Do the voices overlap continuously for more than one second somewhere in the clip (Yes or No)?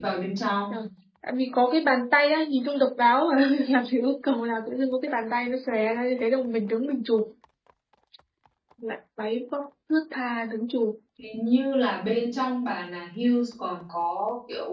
No